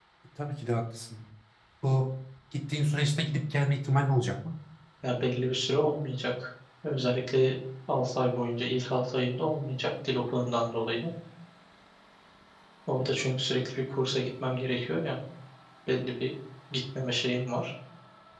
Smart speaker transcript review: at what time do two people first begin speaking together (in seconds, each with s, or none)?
none